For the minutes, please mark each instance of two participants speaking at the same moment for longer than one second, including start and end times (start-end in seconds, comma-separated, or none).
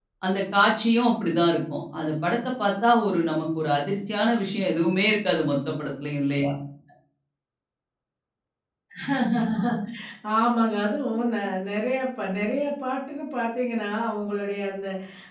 none